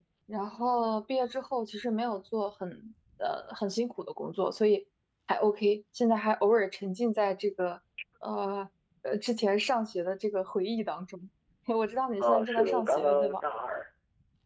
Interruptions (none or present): present